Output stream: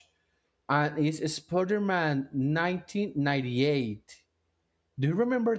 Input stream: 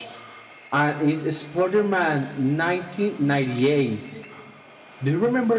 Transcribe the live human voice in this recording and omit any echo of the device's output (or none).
none